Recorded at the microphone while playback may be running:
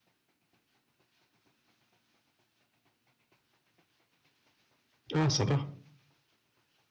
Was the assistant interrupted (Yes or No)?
Yes